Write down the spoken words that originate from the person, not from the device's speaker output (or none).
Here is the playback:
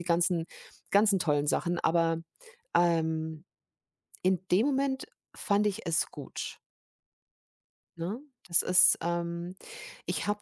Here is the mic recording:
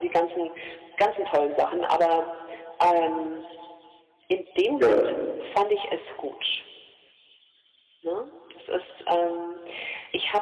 ja.